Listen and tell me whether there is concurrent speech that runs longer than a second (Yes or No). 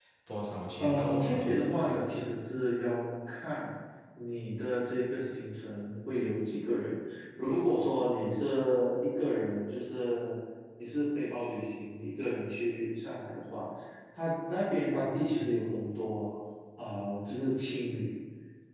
Yes